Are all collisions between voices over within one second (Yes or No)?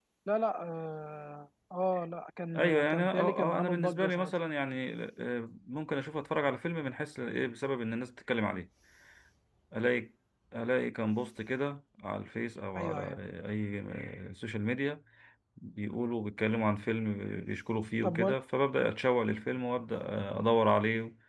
No